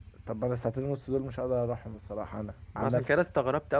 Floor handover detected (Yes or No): Yes